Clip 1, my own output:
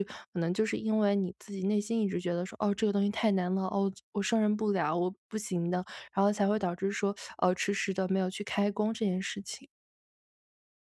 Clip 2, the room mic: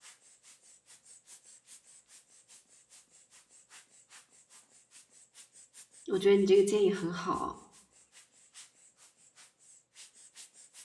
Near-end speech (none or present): present